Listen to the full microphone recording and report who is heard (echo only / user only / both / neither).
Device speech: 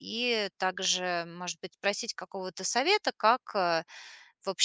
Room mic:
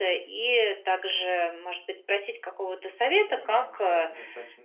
both